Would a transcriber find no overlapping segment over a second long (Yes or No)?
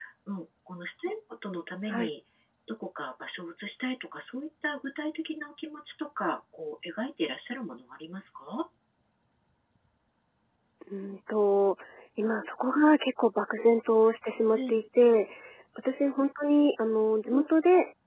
Yes